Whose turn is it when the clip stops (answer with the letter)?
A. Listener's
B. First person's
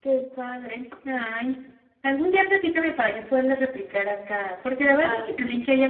B